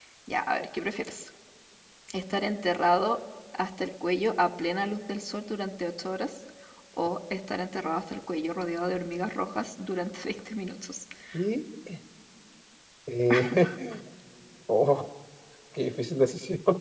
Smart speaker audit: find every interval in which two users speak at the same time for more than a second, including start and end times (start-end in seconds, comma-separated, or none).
none